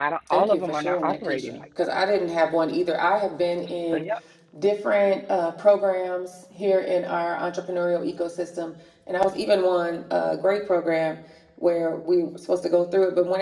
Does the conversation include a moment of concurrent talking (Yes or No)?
Yes